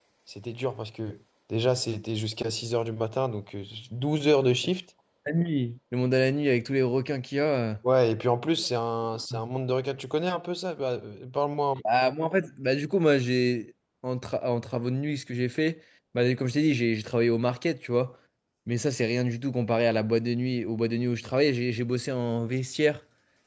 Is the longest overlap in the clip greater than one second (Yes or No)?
No